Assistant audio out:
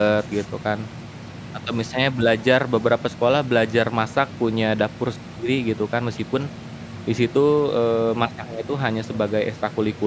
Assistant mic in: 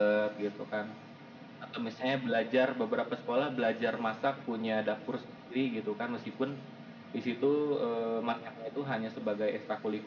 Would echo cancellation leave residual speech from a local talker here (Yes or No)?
No